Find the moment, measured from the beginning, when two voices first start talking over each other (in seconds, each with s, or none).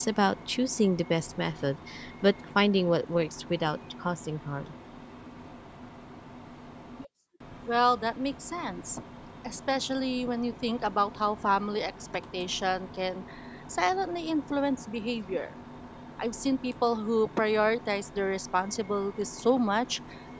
none